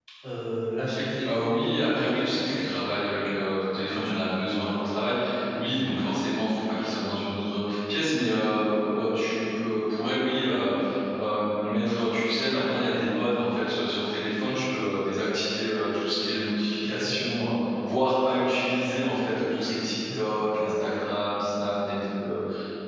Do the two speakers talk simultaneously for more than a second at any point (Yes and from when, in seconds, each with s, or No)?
Yes, from 1.3 s